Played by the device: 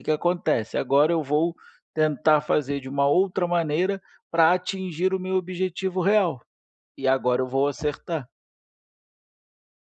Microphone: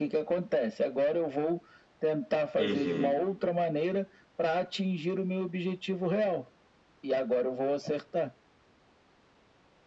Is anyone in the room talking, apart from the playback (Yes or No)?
Yes